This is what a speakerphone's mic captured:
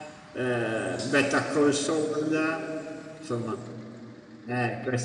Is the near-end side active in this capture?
Yes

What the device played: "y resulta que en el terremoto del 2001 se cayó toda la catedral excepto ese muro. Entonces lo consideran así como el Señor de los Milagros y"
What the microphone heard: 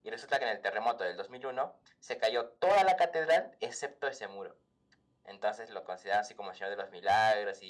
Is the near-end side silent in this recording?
Yes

